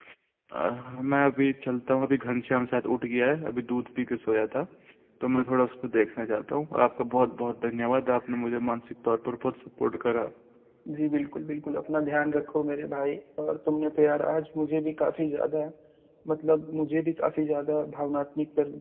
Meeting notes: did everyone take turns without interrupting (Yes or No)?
Yes